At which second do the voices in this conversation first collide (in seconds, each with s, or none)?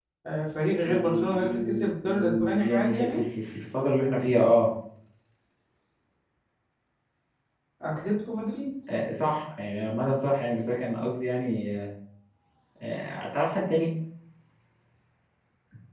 0.9 s